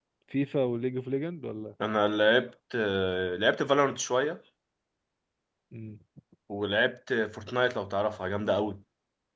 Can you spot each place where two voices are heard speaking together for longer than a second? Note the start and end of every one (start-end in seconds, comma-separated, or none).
none